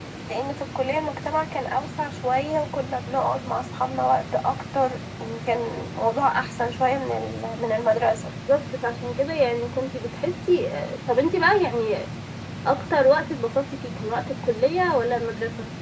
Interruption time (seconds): none

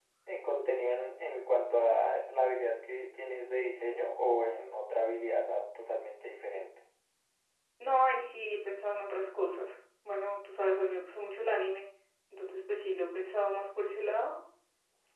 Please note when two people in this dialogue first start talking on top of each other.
none

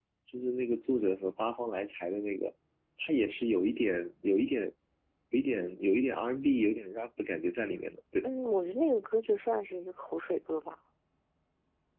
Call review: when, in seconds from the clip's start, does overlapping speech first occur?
none

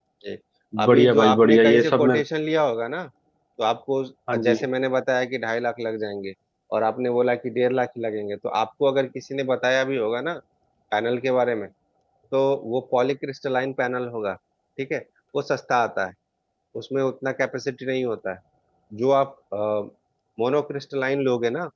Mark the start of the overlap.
0.8 s

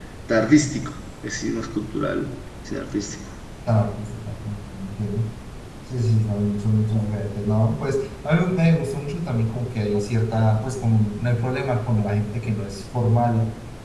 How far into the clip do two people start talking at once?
none

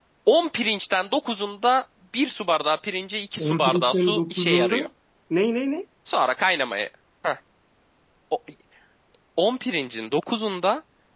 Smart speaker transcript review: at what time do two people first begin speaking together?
3.4 s

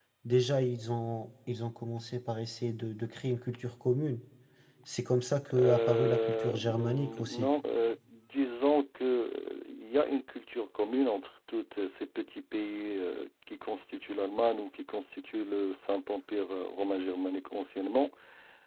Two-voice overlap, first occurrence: 5.6 s

